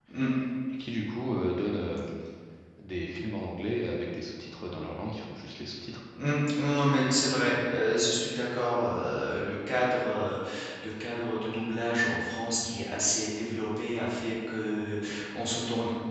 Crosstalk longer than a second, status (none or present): none